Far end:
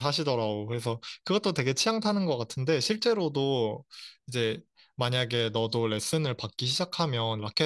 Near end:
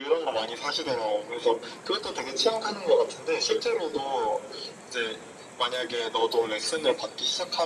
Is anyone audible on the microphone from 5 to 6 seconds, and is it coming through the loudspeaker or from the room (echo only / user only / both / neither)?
echo only